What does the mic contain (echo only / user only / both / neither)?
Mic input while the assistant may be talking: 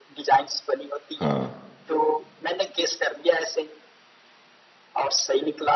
both